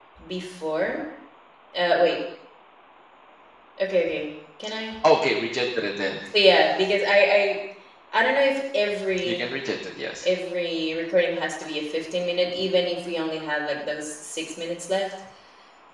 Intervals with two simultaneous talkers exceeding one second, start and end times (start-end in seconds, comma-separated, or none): none